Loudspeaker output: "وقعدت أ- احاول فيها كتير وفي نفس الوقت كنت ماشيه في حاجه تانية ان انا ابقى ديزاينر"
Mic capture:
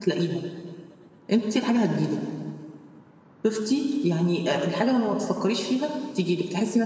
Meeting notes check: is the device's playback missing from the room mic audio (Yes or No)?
Yes